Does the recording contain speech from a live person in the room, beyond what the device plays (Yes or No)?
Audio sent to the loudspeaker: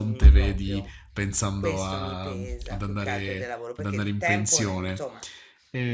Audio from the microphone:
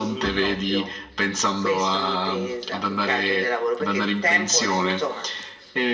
No